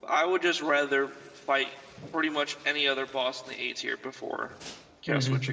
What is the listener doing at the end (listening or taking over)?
taking over